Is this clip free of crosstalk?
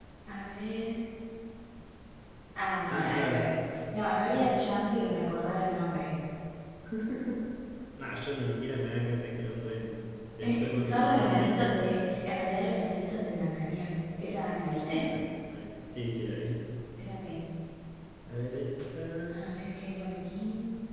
No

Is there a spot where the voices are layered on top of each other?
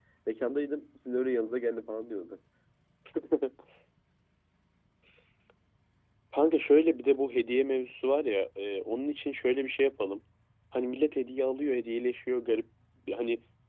No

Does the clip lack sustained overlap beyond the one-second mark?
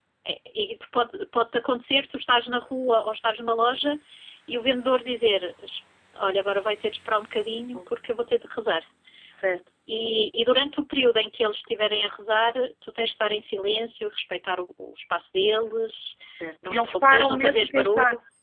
No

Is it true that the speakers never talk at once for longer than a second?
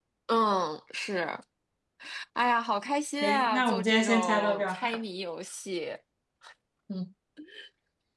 No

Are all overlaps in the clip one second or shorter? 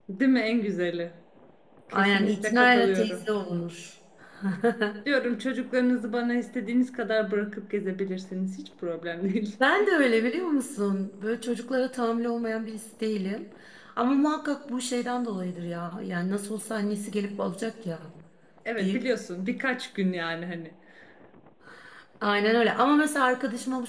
No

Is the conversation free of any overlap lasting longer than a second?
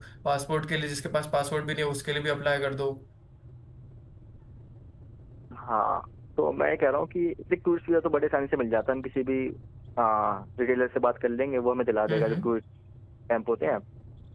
Yes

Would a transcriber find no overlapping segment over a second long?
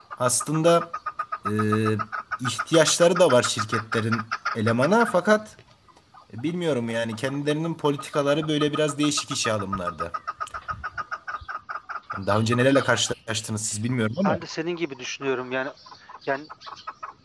Yes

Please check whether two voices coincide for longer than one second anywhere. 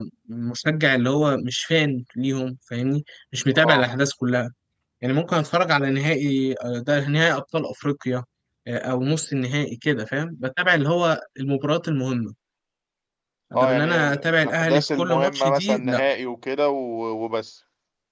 Yes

